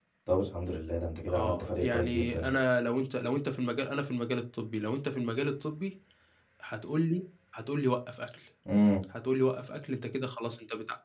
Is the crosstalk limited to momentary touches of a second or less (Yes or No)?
No